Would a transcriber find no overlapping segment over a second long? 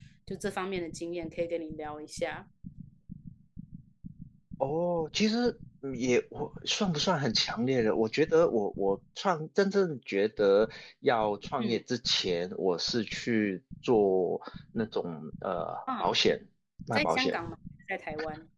Yes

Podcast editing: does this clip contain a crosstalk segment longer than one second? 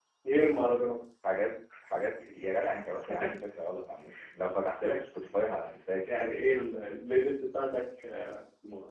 No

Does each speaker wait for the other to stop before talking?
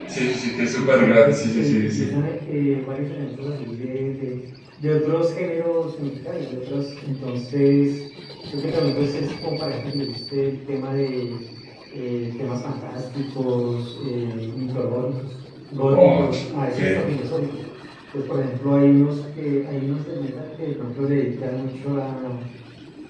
No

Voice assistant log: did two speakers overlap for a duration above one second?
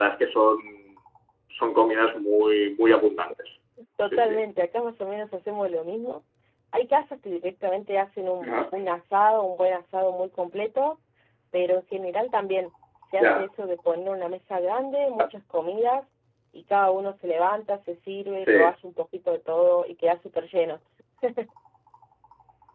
No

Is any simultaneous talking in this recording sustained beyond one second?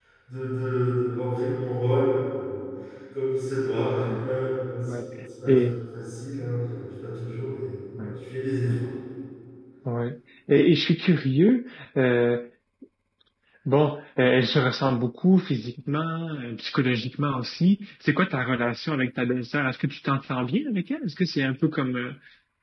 No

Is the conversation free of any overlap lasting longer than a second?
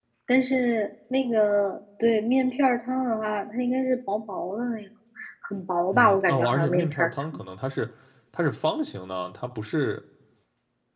No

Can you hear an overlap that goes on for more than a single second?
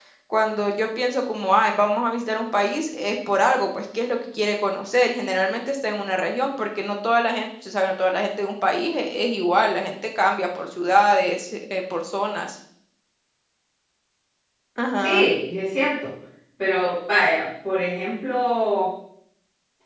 No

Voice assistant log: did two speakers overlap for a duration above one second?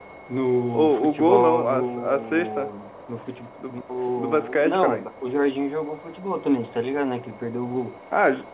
Yes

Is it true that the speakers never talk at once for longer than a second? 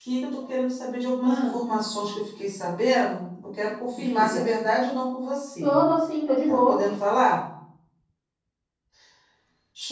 Yes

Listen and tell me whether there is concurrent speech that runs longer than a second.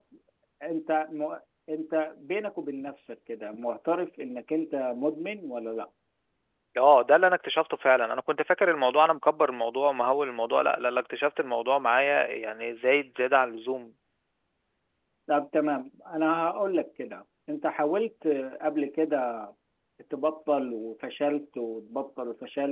No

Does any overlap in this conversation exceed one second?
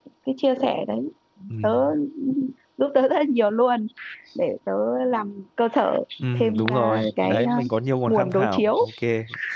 Yes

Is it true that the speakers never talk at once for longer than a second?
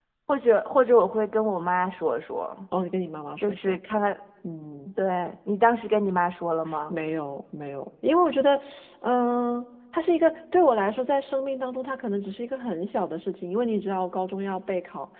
Yes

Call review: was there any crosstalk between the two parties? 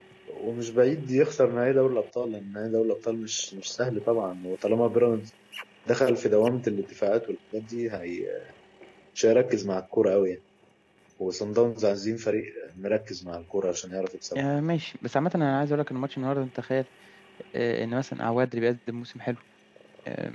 No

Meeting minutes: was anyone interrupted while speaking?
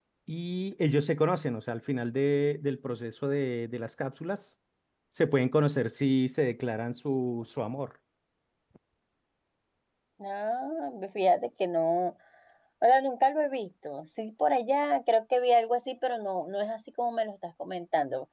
No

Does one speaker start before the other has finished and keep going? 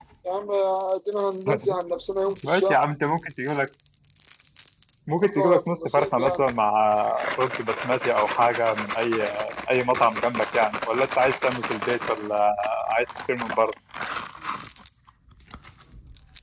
Yes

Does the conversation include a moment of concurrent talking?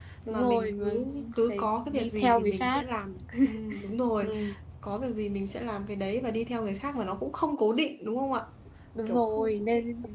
Yes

